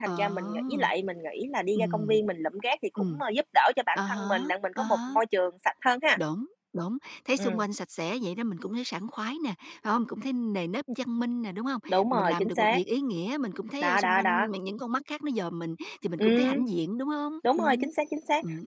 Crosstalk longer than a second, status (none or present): present